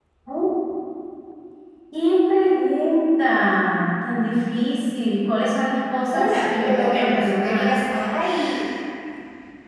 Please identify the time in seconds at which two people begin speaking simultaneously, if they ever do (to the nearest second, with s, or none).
6 s